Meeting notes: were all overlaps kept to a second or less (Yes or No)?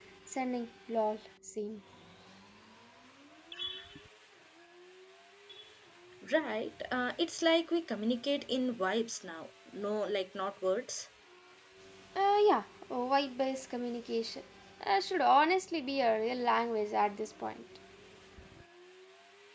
Yes